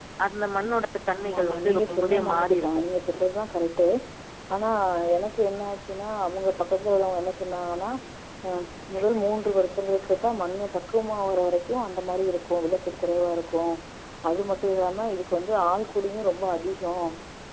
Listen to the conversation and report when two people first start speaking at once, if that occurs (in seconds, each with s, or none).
1.2 s